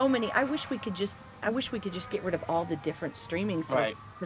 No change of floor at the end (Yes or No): No